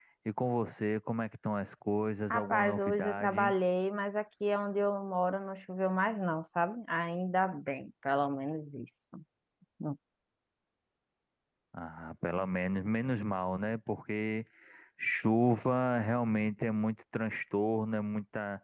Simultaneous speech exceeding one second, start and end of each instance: 2.3-3.5

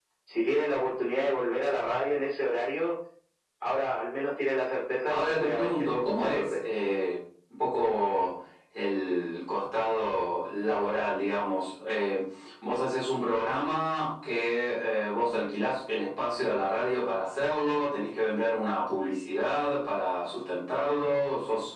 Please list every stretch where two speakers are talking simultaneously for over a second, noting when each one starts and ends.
5.1-6.5

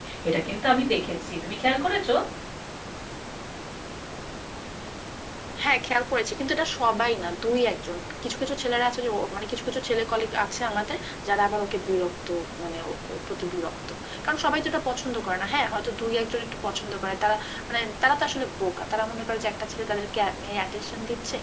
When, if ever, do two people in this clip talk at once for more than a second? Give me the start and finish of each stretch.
none

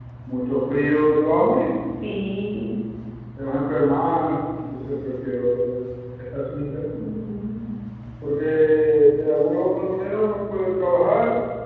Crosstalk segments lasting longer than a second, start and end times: none

